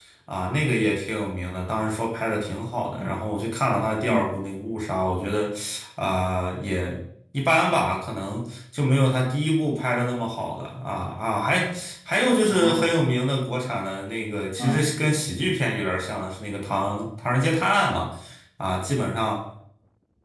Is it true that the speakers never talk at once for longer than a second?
Yes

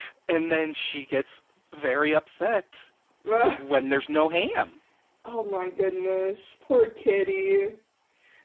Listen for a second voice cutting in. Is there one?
No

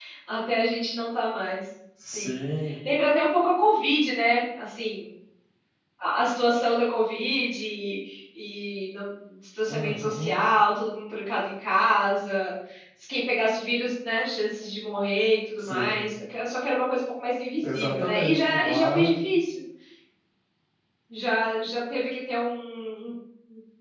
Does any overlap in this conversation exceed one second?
Yes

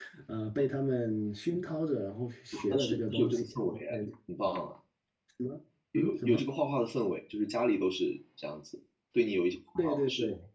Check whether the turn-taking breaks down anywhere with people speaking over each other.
Yes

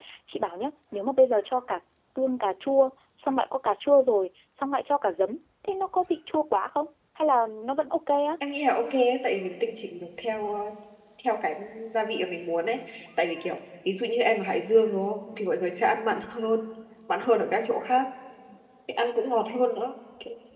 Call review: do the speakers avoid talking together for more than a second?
Yes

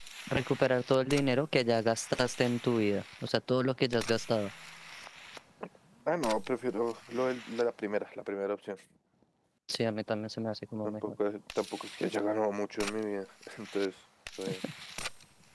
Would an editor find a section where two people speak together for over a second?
No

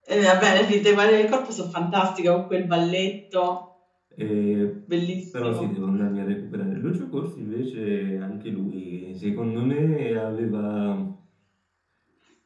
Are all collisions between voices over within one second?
Yes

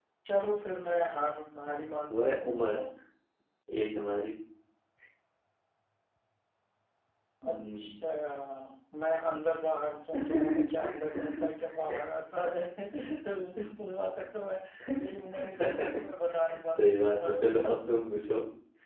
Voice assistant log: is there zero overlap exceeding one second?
No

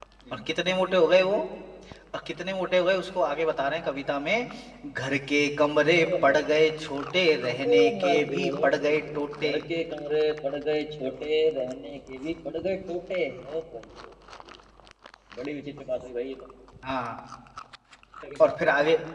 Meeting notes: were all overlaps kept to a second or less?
No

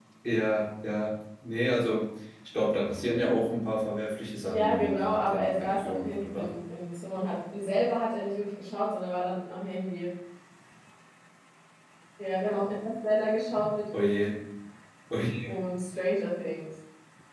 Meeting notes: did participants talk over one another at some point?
Yes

